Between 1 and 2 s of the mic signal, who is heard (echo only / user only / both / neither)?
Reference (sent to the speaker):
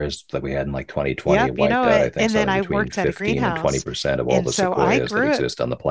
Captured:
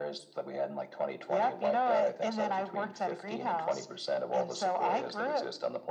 echo only